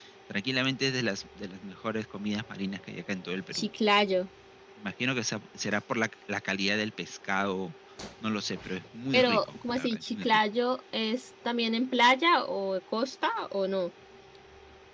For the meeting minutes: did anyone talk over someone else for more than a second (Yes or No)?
Yes